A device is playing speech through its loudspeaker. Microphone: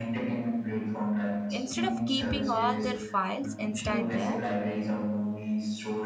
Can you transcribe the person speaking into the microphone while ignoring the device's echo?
instead of keeping all their files inside their

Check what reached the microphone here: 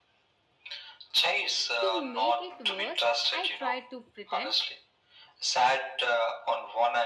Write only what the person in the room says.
To make it worse, I tried to pretend

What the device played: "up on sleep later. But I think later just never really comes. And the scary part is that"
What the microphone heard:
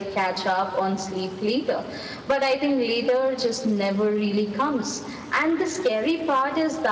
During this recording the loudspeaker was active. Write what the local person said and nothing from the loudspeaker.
none

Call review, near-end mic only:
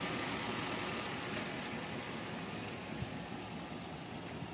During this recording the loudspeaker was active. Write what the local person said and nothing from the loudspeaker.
none

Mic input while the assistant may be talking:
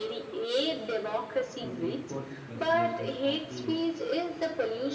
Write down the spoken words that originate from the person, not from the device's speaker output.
to decode messages responsibly.

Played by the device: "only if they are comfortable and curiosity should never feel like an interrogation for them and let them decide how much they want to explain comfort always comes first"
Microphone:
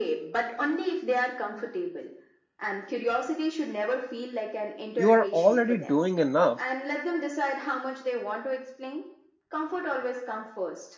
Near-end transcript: You are already doing enough,

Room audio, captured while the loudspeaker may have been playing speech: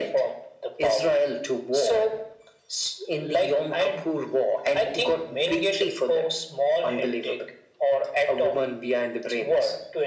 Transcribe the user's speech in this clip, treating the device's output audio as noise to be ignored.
none

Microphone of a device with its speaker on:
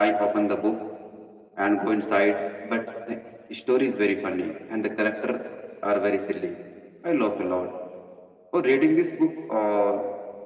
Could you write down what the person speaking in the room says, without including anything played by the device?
none

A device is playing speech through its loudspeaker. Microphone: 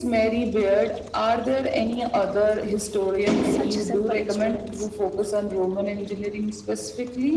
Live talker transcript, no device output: such simple instruments.

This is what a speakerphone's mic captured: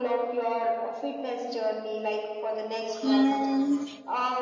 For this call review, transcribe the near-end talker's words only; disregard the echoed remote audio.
Hmm.

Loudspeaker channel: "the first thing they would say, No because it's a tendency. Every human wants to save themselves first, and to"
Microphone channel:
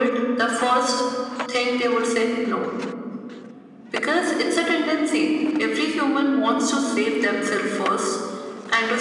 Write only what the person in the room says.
none

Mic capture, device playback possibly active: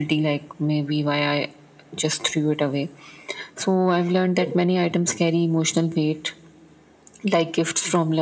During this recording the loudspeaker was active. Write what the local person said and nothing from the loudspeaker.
none

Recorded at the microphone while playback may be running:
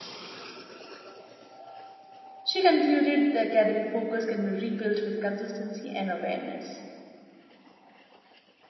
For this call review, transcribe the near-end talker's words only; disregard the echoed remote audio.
She concluded the academic focus can be rebuilt with consistency and awareness.

